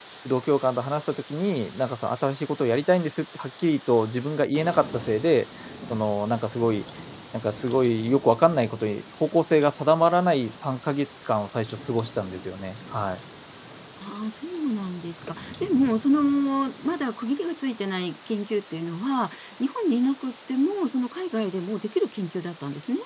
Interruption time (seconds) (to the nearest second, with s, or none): none